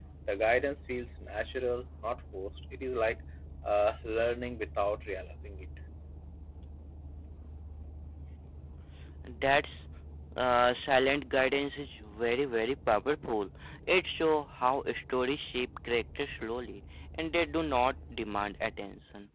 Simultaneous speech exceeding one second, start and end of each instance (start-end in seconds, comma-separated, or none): none